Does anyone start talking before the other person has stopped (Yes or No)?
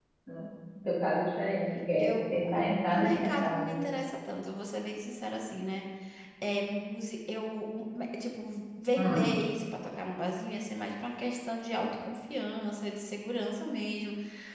Yes